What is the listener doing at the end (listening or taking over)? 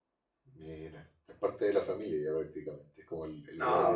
taking over